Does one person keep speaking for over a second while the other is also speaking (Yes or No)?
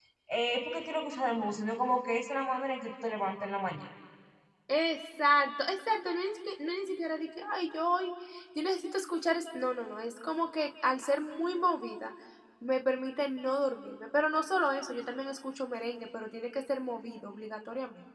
No